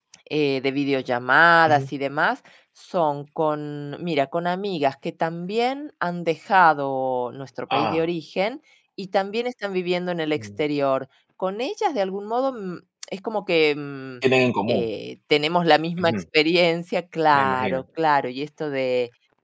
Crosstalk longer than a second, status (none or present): none